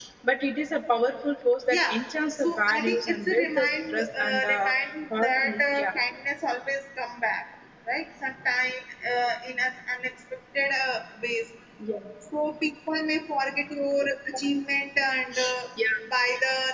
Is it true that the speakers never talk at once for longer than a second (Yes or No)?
No